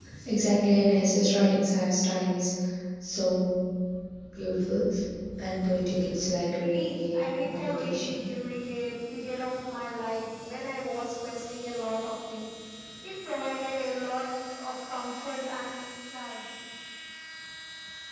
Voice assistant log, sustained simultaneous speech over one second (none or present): present